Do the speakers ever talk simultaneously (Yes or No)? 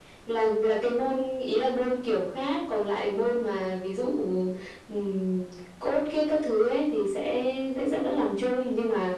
No